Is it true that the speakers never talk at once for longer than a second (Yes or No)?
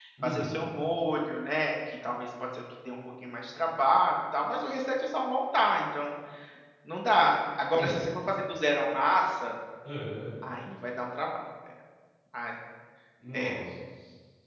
Yes